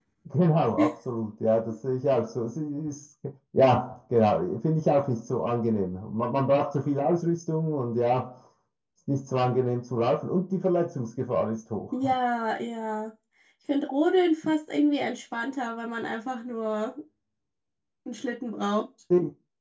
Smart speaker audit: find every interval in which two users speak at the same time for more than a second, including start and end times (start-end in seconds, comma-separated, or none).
none